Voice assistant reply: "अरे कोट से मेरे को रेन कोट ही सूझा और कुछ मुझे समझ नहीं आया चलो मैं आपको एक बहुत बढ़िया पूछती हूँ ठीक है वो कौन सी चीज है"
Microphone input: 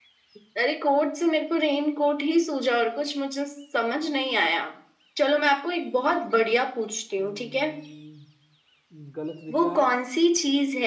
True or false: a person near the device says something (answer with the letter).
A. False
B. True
B